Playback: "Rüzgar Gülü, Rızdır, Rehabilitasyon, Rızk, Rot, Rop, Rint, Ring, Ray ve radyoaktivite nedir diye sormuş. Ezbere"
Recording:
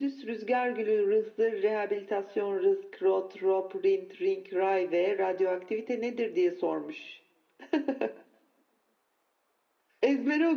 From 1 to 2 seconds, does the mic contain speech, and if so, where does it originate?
echo only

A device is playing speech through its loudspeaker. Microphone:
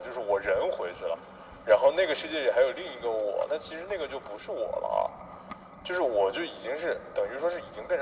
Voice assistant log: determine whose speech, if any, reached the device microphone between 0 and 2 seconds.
echo only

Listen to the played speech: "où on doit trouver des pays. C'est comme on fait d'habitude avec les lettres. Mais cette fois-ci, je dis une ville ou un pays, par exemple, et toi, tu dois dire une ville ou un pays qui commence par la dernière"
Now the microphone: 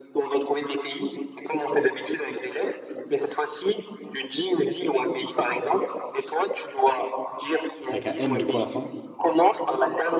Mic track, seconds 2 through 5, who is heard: echo only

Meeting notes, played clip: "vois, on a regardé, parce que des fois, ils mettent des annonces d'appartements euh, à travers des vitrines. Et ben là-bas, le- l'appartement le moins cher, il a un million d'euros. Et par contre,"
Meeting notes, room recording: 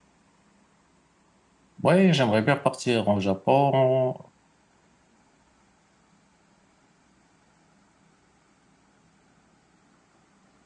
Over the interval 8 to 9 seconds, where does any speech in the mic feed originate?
neither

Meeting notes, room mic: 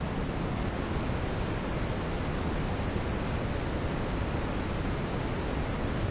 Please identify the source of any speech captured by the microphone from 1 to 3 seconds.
neither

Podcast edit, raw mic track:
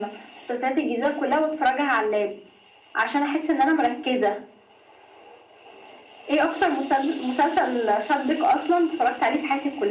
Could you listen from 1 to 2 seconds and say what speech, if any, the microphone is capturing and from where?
echo only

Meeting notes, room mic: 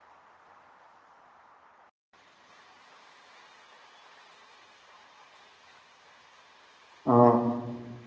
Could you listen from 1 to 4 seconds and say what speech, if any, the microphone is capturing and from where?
neither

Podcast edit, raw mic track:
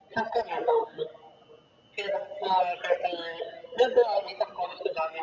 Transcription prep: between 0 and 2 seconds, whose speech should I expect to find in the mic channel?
echo only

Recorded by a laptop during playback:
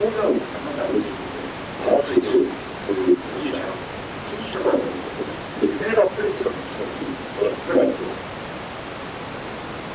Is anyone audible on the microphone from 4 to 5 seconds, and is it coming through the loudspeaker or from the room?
echo only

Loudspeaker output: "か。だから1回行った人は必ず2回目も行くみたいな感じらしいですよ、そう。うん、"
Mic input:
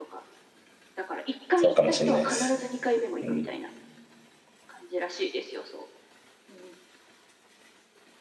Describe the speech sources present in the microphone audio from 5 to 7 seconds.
echo only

